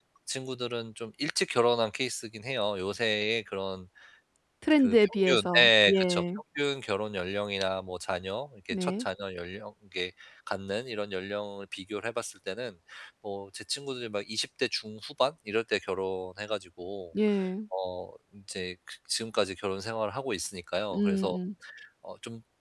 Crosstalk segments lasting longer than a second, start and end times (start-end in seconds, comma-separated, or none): 4.8-6.2